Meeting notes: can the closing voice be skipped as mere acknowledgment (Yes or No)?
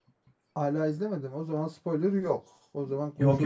No